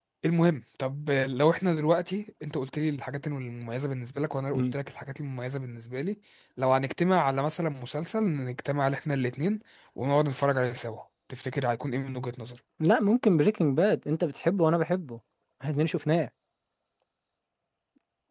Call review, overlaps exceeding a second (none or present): none